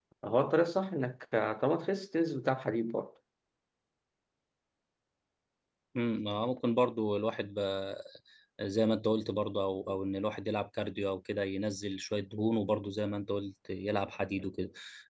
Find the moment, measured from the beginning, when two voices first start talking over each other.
none

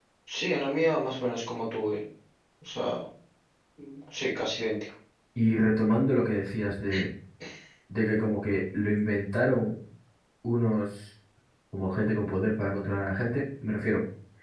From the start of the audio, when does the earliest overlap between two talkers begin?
none

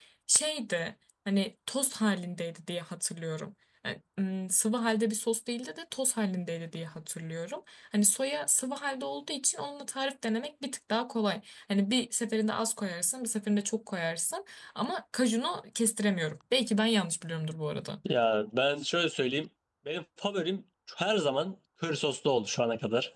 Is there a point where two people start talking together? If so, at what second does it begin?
none

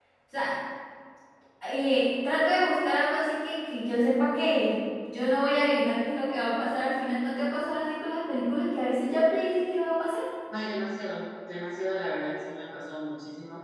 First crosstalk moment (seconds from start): none

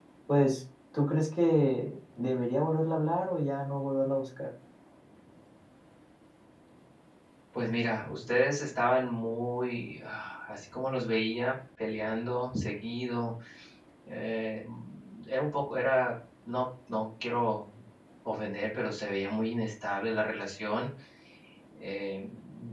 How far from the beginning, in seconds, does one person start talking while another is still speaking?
none

